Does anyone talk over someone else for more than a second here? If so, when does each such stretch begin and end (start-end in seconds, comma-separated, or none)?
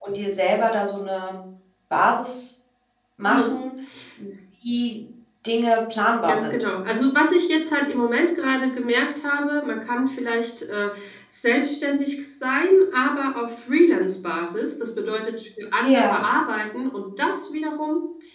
none